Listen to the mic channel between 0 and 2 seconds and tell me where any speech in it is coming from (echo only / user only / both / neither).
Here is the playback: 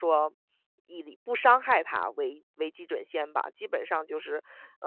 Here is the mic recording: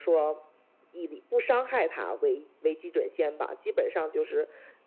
echo only